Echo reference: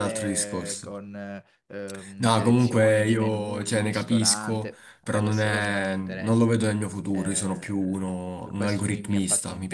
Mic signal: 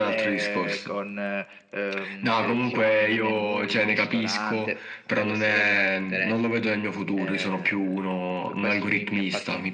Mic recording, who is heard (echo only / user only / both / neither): echo only